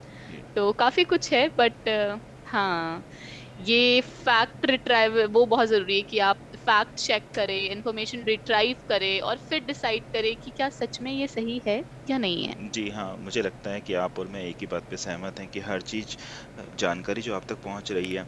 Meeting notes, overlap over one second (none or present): none